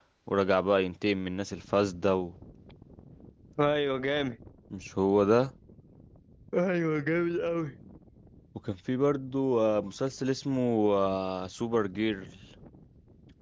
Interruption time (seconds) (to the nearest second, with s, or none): none